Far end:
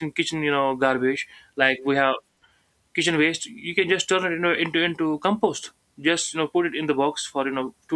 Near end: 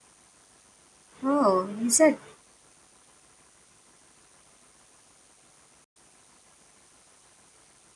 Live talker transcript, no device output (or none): Oh, is it?